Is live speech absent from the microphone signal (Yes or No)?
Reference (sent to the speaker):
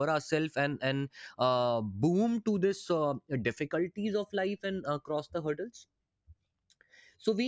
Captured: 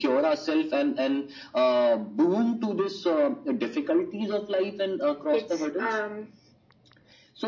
No